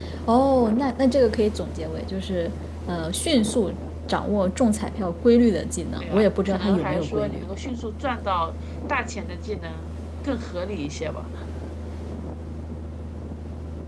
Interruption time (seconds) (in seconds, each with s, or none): 6.0 s